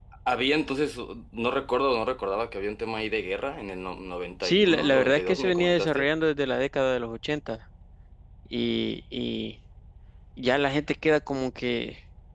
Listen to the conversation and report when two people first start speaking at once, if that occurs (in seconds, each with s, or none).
4.4 s